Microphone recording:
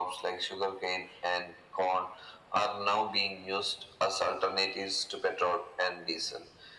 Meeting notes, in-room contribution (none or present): none